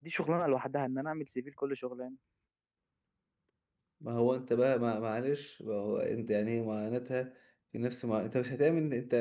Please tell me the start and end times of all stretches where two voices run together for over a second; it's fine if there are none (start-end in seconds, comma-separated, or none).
none